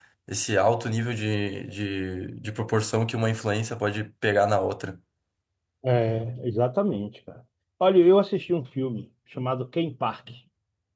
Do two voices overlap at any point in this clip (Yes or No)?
No